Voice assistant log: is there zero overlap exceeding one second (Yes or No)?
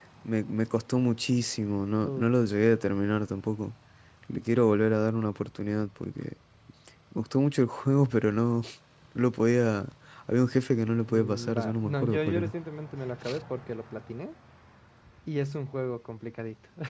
No